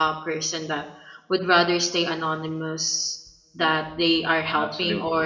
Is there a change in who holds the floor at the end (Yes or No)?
No